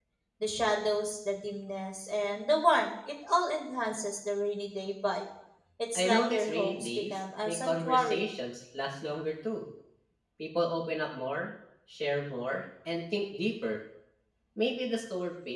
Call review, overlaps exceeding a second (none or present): present